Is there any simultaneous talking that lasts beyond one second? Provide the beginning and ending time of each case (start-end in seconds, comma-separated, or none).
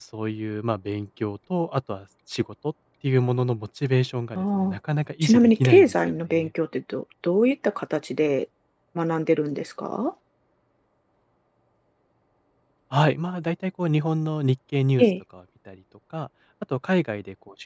5.2-6.5